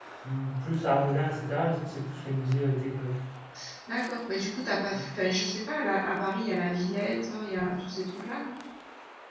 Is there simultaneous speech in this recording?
No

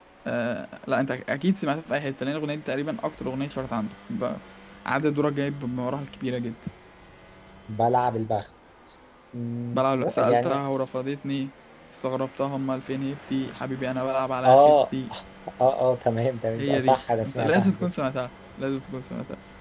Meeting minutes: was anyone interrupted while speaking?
Yes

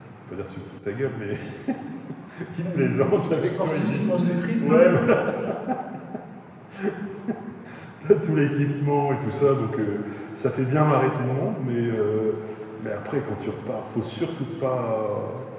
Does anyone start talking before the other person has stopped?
Yes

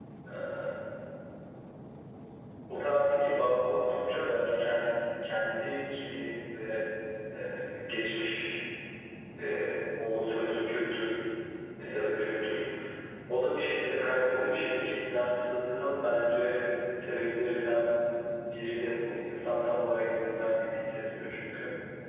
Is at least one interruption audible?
No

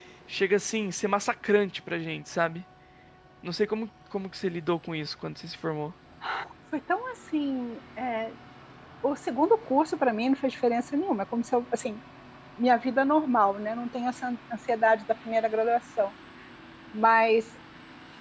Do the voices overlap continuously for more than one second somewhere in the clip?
No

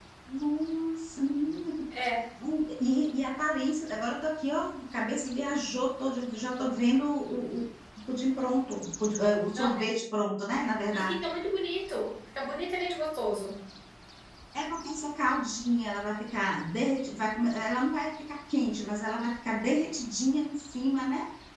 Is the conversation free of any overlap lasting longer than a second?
Yes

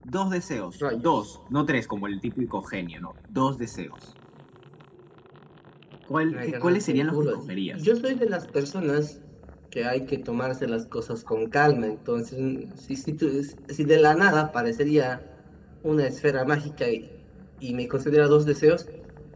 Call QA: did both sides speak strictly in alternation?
No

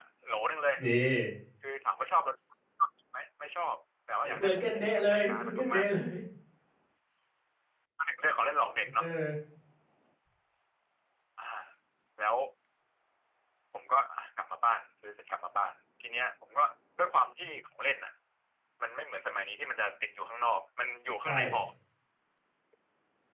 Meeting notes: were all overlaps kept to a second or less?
No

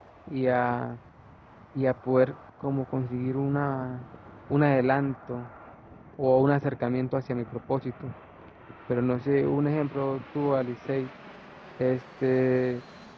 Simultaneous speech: No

